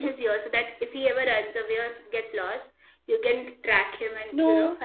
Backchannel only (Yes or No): Yes